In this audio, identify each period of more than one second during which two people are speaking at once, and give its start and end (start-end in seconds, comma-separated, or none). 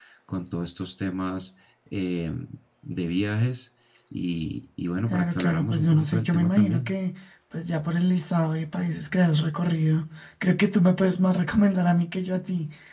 5.1-6.9